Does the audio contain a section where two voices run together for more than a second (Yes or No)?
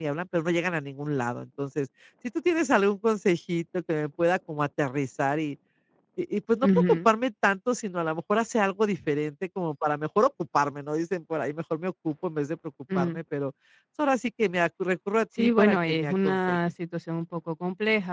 Yes